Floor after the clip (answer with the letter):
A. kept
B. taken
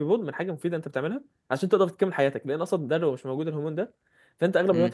A